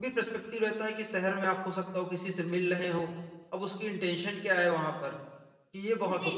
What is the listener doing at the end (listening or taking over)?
taking over